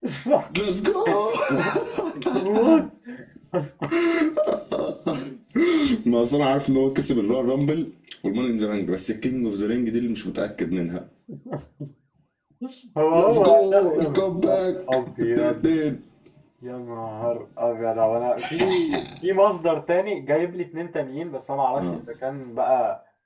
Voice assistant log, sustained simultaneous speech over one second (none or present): present